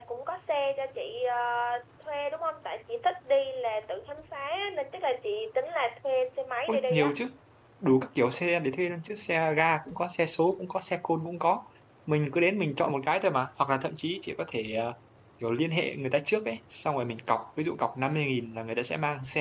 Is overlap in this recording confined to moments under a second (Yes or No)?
Yes